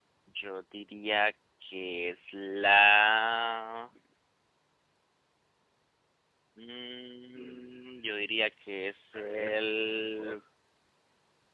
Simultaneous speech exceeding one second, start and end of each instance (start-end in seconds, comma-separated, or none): 9.2-10.3